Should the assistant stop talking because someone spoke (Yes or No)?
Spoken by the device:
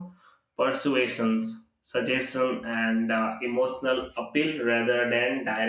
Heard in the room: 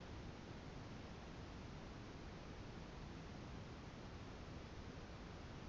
No